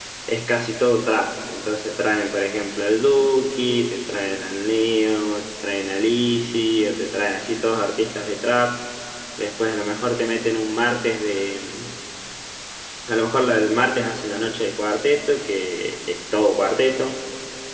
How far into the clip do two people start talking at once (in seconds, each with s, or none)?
none